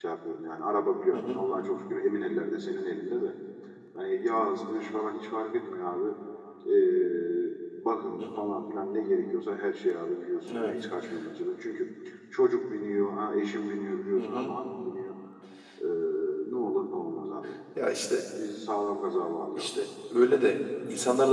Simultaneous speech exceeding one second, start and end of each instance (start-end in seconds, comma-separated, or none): none